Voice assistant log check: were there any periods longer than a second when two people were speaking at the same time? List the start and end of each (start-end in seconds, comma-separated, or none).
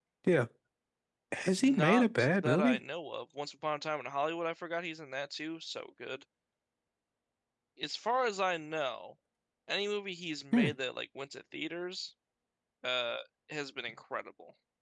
1.6-2.8